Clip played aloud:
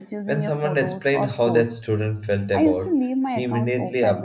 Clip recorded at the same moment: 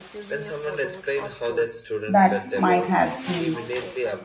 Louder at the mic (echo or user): user